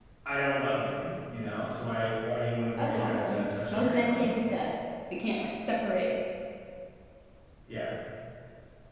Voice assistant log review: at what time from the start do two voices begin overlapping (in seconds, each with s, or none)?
2.8 s